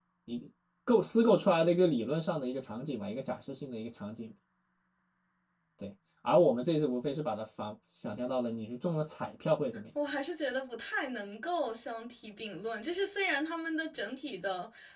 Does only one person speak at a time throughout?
Yes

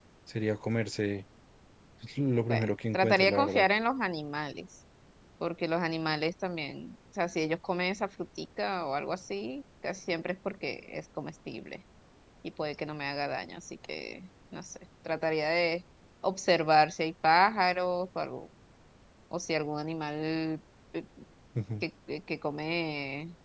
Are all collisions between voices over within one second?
No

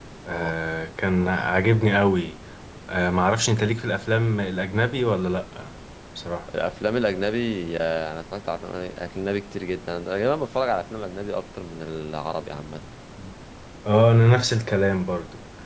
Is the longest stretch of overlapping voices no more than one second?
Yes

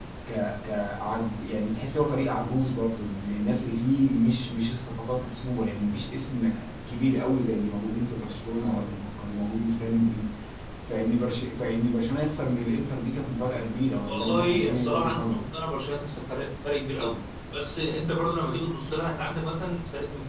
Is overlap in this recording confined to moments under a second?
No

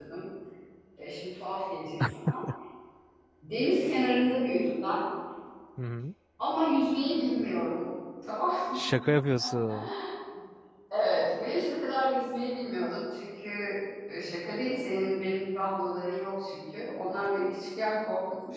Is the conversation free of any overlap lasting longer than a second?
Yes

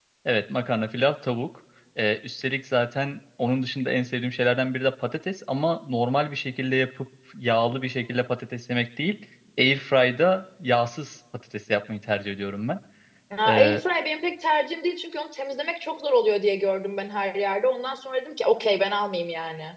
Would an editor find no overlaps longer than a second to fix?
Yes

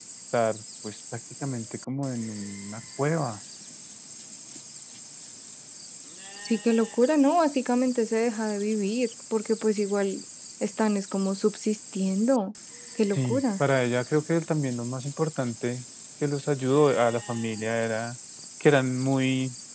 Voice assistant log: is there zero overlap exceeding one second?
Yes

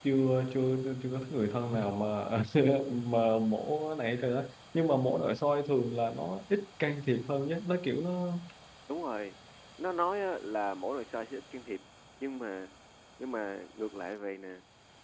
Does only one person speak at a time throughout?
Yes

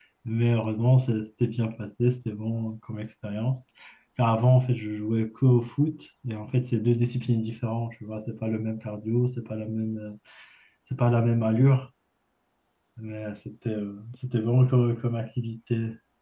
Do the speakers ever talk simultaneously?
No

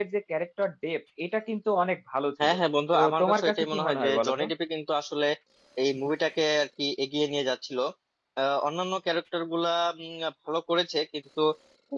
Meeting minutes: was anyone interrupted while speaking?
Yes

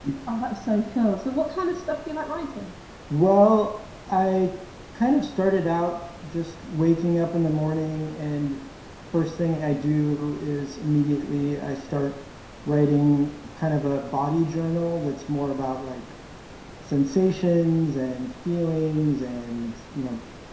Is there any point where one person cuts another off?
No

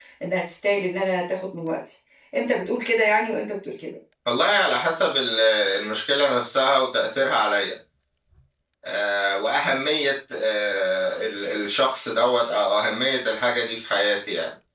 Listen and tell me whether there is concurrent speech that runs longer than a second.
No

